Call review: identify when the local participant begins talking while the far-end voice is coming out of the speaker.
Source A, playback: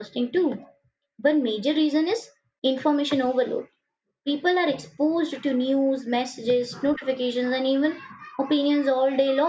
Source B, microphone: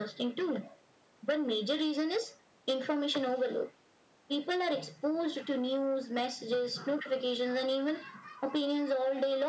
none

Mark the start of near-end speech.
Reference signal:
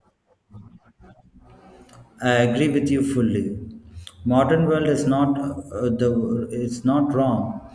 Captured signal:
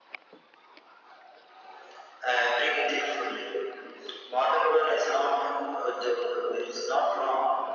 none

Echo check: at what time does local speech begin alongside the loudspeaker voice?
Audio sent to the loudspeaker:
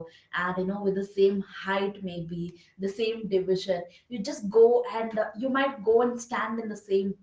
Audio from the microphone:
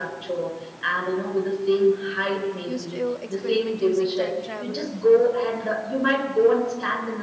3 s

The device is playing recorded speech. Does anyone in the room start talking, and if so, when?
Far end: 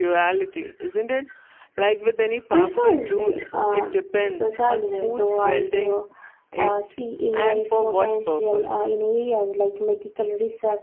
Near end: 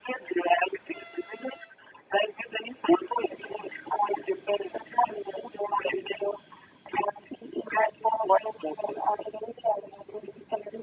none

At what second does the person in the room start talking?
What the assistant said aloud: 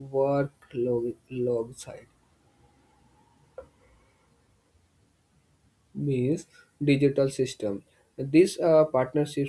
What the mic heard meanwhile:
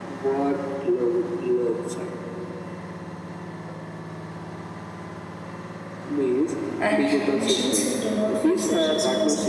7 s

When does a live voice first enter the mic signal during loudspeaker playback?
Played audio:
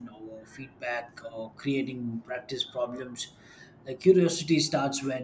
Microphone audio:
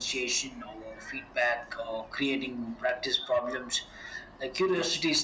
none

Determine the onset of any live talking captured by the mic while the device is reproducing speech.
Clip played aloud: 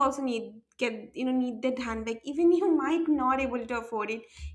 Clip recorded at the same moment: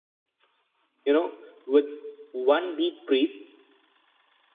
1 s

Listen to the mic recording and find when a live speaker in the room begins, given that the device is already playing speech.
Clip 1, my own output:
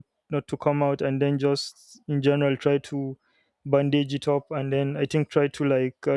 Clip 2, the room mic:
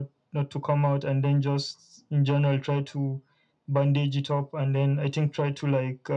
none

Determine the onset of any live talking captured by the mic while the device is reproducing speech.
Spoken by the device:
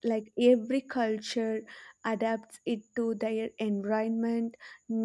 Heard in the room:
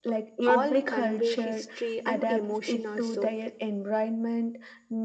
0 s

